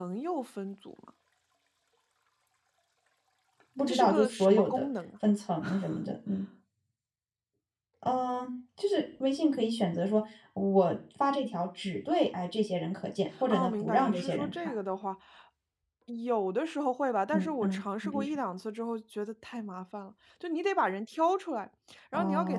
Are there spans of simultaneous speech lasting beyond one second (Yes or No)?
Yes